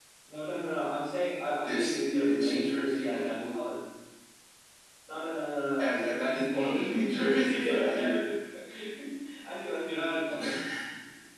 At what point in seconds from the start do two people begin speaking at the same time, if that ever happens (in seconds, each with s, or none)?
1.6 s